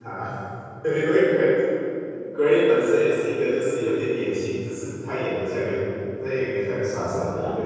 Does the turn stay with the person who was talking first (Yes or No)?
No